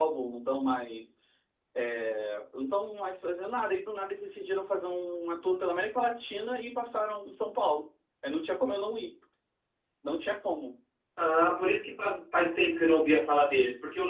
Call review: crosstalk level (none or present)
none